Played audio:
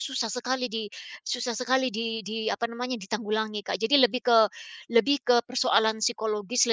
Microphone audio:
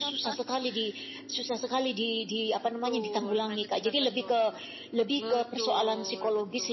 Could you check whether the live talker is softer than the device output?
Yes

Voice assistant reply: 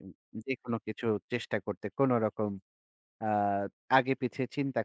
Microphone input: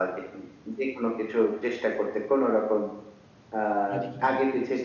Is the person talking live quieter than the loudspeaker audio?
Yes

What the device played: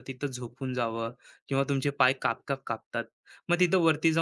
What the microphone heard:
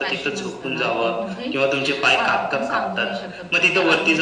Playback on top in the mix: Yes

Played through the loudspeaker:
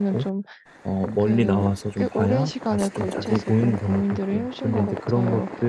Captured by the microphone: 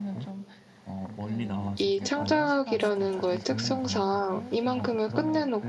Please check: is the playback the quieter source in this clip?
Yes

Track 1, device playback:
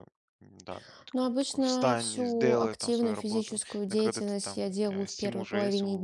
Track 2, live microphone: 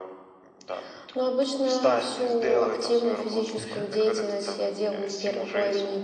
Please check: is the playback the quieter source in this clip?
No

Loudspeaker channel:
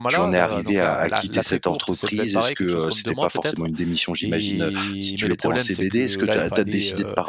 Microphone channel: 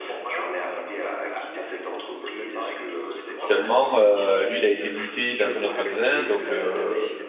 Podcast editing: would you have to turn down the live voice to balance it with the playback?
Yes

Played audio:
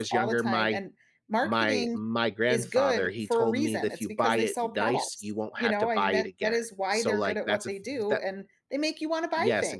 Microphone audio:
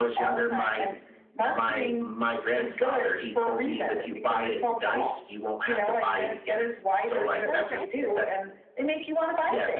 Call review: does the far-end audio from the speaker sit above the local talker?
Yes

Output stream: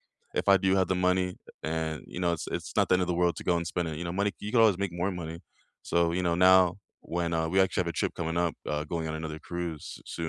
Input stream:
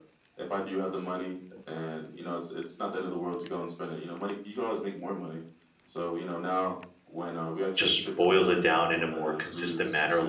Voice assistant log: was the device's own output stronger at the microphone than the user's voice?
No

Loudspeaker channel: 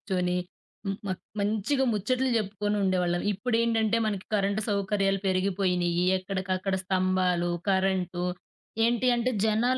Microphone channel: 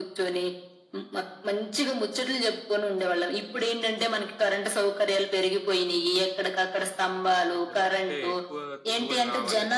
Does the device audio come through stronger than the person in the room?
Yes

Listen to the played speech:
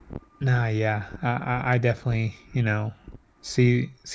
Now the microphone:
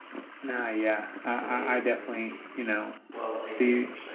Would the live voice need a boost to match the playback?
Yes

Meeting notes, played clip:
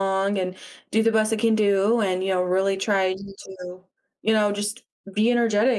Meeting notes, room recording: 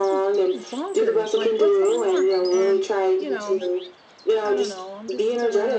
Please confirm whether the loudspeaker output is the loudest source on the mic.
Yes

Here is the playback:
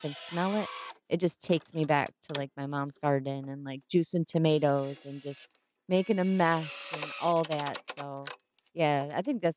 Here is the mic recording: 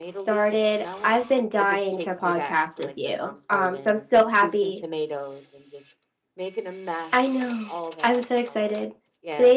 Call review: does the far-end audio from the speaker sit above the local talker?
No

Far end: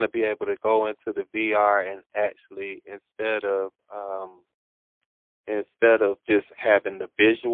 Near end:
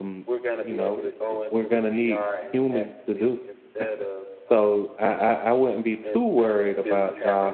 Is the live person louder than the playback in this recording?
Yes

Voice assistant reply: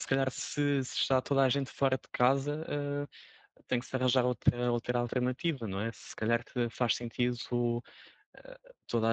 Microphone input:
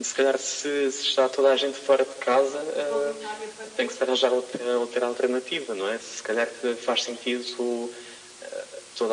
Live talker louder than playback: No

